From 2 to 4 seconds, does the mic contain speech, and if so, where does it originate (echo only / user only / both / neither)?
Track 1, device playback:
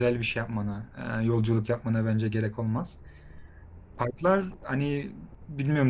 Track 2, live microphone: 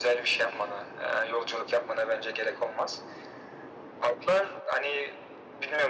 echo only